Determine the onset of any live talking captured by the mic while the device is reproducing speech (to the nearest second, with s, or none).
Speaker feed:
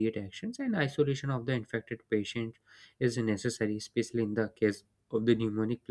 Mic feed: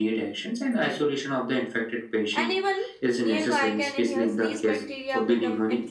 2 s